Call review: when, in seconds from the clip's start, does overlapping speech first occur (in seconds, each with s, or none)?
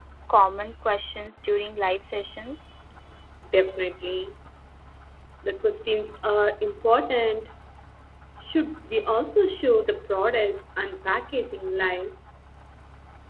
none